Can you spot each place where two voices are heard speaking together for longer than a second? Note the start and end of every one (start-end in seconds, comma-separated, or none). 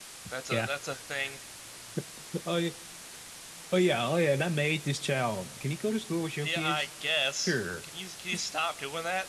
none